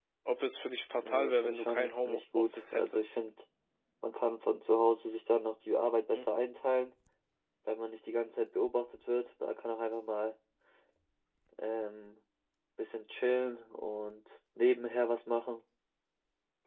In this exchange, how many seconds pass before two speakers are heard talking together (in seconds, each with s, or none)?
1.0 s